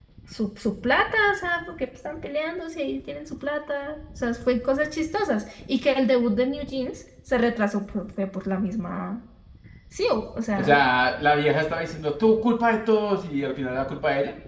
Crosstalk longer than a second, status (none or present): none